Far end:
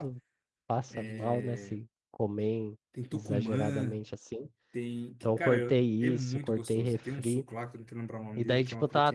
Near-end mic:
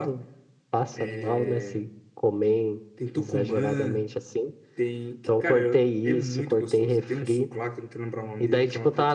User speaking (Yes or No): No